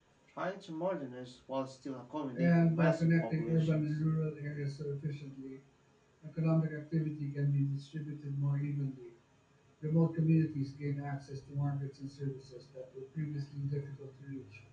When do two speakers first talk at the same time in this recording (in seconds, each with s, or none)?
2.3 s